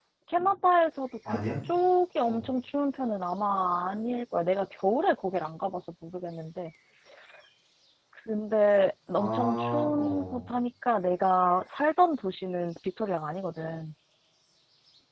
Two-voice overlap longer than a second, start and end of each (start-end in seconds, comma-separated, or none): 9.2-10.4